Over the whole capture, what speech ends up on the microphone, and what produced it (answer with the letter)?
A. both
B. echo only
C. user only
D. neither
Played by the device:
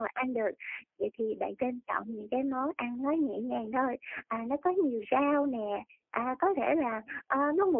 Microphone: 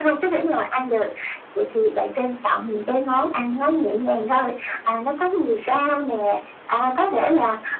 B